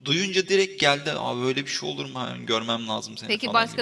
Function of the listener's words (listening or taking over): taking over